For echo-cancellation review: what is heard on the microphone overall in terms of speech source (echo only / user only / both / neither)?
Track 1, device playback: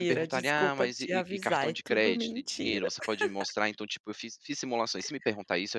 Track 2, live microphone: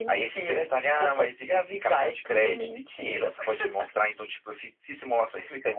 echo only